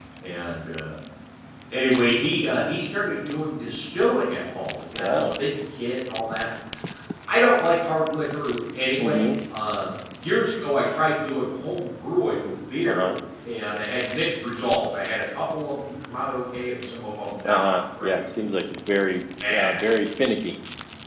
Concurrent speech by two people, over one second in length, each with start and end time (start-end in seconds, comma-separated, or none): 17.4-18.6